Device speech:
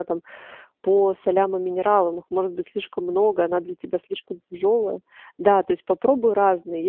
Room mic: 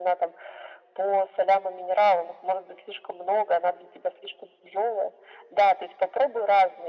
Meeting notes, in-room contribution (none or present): none